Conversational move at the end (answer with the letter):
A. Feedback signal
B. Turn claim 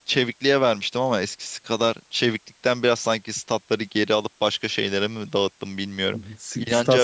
B